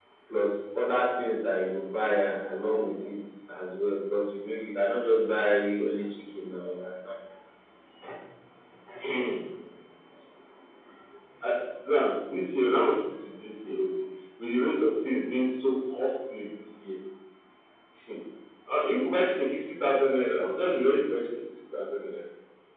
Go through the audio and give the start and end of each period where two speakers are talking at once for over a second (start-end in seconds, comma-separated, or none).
none